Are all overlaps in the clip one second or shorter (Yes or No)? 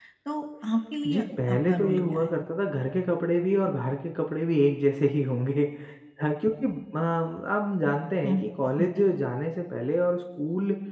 No